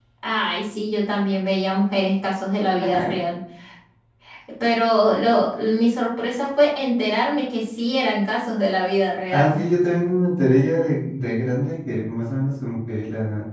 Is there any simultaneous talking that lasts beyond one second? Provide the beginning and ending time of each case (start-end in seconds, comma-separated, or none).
none